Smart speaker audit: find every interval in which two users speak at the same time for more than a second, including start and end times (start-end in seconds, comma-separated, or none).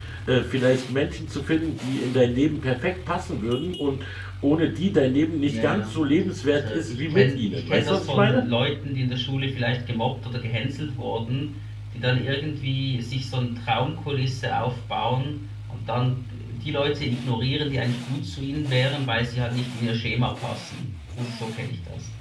6.5-8.4